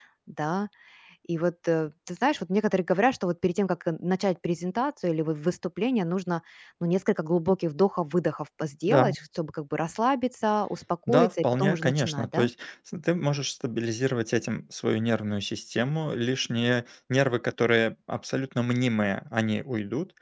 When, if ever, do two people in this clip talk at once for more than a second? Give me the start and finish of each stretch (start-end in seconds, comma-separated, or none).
11.1-12.5